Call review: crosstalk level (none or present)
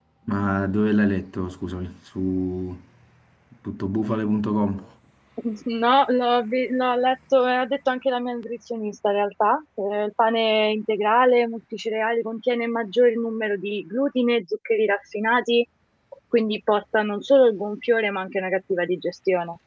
none